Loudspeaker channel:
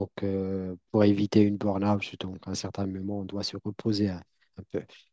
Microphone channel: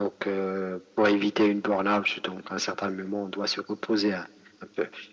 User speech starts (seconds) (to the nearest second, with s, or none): none